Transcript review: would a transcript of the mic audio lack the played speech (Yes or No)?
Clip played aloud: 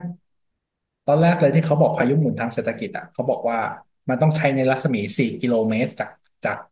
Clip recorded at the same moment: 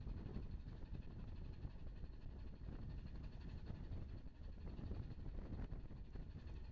Yes